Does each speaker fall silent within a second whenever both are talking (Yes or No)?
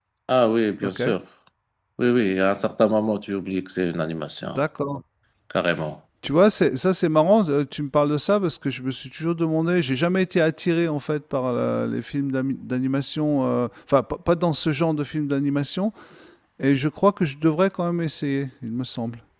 Yes